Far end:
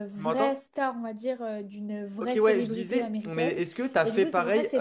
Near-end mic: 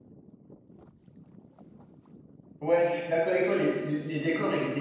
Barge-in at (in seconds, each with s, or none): 2.6 s